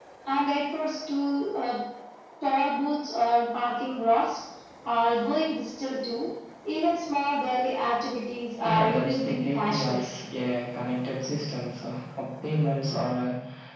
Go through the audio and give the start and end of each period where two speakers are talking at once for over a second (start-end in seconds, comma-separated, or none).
8.6-10.2